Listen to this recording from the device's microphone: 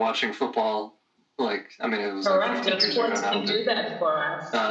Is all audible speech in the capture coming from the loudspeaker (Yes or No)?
No